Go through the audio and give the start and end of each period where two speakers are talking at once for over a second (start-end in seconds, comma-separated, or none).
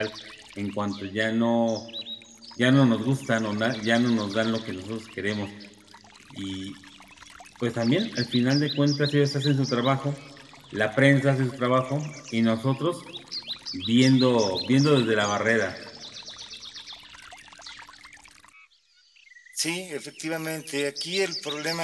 none